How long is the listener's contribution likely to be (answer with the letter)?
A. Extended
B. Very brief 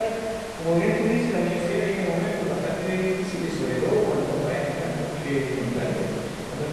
B